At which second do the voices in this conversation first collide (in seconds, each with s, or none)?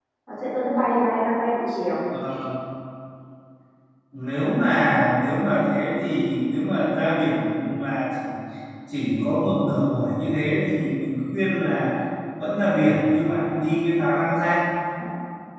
none